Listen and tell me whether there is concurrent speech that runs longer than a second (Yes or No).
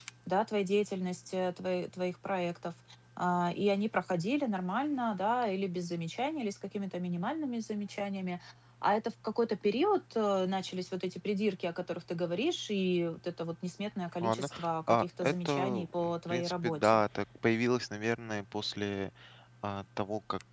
Yes